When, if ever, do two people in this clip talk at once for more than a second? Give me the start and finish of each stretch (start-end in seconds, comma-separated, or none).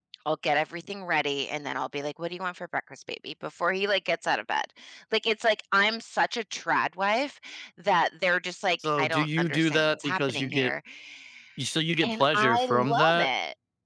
9.0-10.7, 12.1-13.3